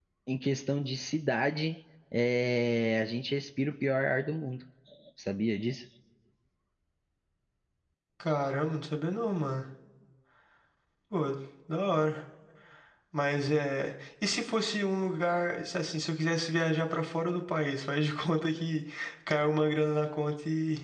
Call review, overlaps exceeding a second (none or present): none